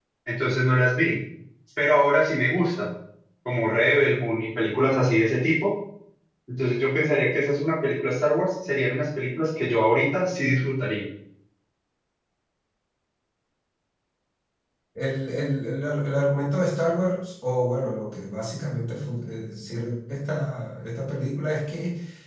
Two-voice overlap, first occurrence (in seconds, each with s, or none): none